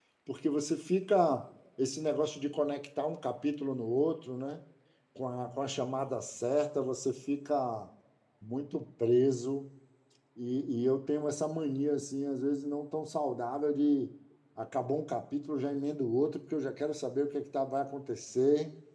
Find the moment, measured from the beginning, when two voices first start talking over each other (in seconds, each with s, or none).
none